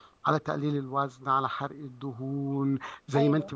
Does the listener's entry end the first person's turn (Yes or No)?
No